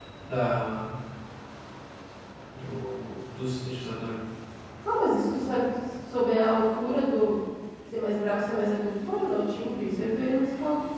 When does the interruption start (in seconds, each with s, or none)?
none